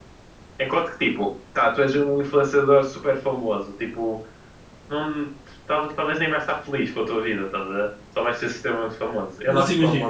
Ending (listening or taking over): taking over